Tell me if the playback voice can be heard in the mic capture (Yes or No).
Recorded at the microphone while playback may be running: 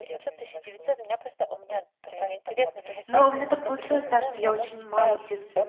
Yes